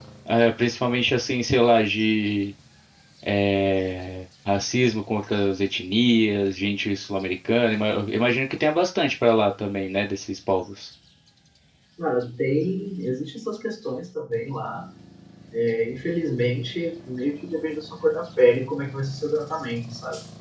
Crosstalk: none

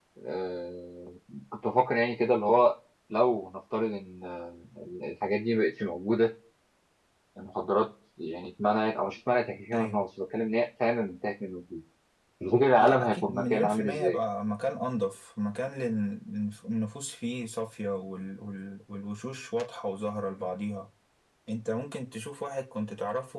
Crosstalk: present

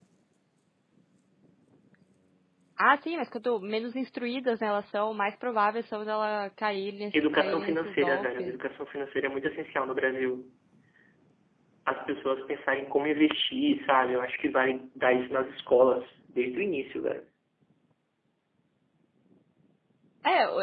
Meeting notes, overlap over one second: present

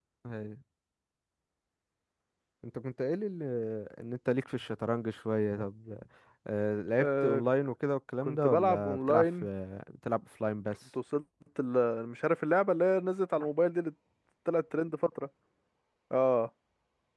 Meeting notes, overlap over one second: present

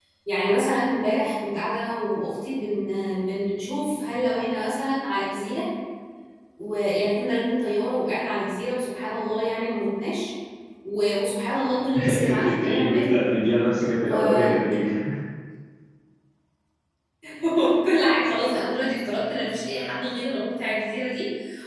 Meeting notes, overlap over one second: present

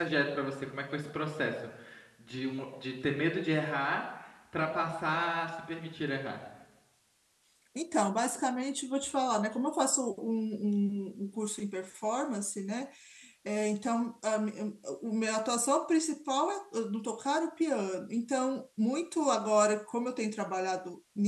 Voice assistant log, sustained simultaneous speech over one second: none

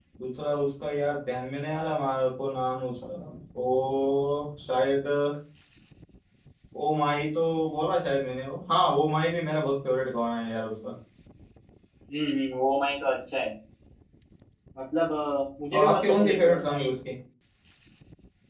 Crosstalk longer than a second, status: present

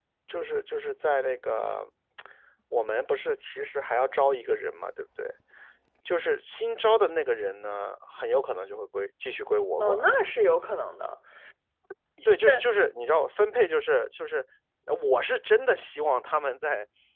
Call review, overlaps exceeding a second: none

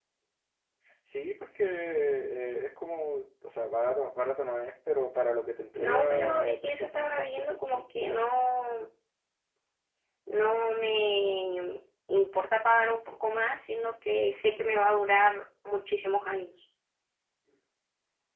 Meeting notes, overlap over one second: present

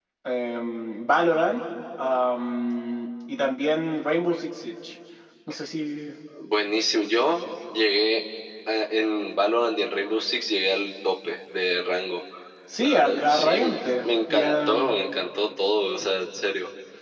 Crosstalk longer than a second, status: present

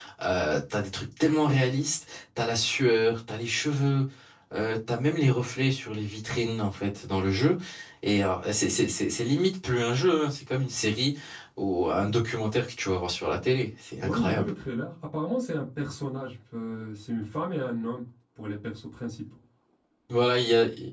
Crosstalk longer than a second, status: none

